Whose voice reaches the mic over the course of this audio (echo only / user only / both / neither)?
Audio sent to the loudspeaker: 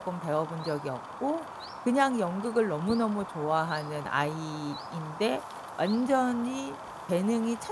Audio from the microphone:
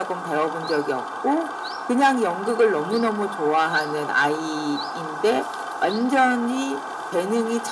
echo only